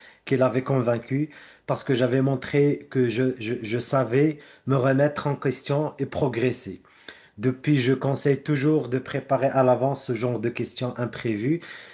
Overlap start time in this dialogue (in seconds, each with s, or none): none